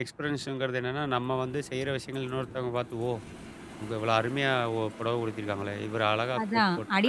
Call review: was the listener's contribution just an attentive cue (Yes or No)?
No